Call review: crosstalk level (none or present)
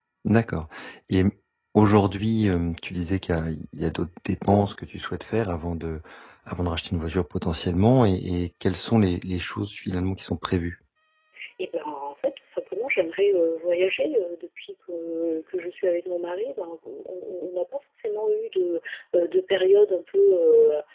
none